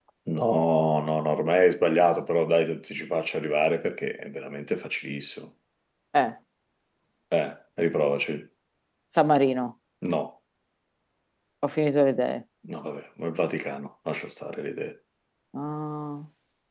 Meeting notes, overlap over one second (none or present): none